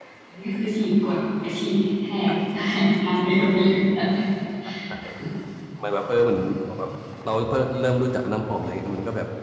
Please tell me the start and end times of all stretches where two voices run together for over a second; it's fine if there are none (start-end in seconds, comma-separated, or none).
none